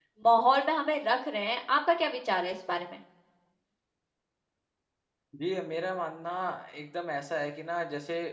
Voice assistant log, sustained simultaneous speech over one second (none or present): none